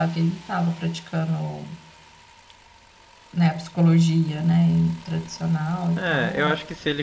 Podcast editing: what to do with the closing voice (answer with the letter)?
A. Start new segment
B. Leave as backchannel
A